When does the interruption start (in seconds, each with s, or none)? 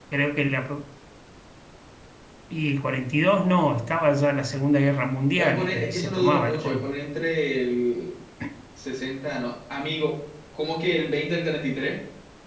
5.4 s